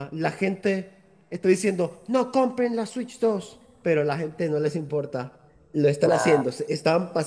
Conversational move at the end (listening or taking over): listening